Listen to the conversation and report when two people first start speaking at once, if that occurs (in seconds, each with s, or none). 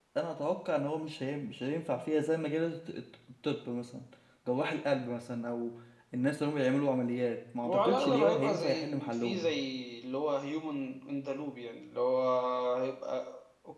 7.6 s